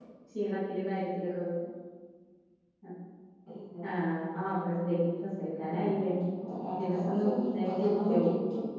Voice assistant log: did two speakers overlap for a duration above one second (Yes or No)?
Yes